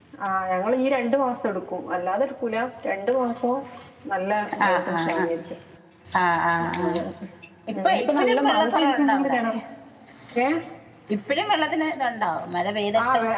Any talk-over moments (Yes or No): Yes